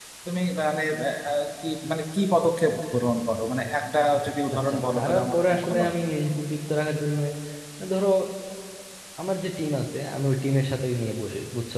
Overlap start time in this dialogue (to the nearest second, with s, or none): 5 s